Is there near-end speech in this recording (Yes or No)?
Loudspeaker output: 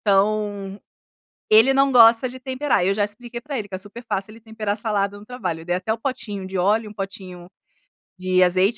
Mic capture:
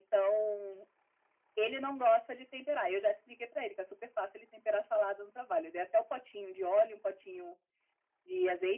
No